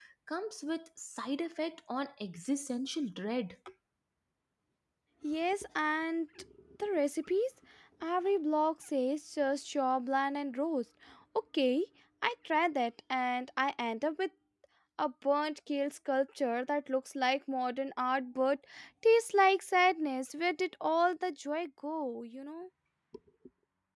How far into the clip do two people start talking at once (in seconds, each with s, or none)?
none